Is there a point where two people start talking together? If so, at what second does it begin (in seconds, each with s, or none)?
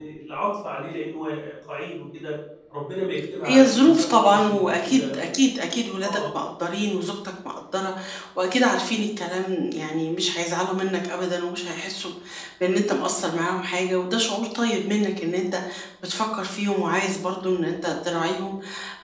3.5 s